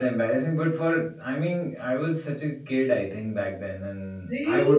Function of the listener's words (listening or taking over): taking over